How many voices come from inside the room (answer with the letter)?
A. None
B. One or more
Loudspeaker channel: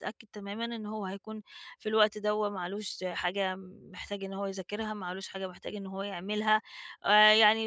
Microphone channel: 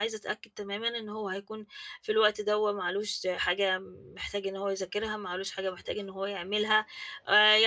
A